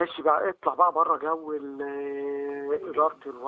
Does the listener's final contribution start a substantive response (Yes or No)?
No